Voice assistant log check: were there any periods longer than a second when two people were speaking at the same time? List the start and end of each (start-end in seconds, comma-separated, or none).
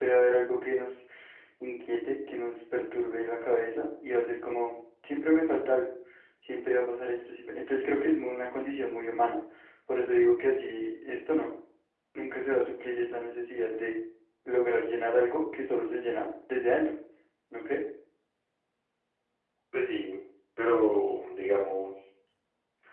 none